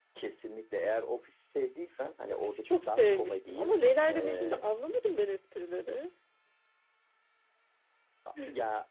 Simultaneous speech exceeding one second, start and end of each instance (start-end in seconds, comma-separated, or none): 2.3-3.7